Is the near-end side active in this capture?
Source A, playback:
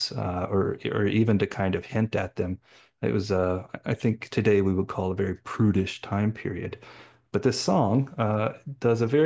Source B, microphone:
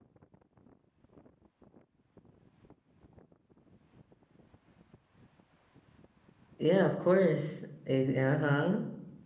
Yes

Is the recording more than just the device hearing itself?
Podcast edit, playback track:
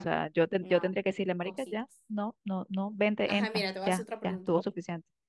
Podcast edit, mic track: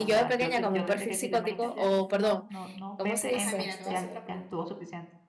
Yes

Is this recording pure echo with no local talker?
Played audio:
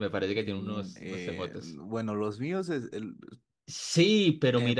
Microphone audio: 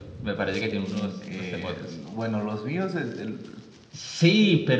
Yes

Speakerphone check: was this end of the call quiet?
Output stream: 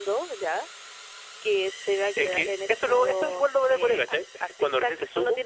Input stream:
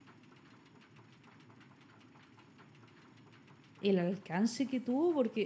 No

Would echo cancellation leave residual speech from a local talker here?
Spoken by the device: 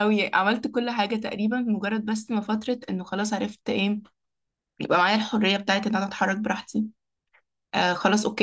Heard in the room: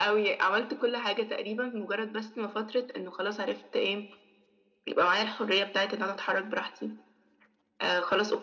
No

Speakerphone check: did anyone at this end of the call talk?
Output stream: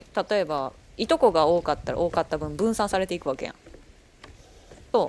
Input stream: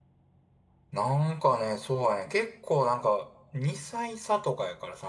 Yes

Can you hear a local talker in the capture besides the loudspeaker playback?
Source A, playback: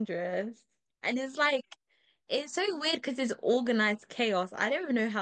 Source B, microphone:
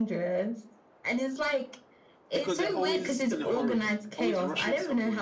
Yes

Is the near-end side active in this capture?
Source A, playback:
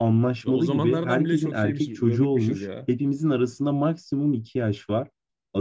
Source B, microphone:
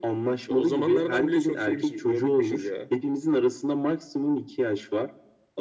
No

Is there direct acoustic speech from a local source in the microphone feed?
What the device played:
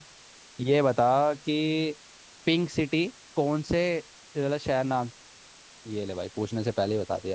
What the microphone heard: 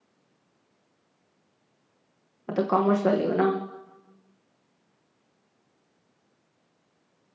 Yes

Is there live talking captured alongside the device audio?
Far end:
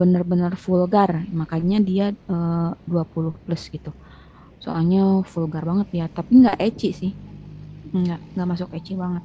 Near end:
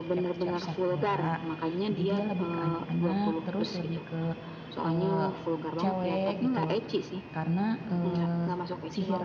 Yes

